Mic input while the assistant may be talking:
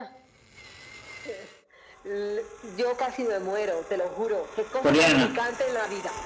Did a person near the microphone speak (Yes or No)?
Yes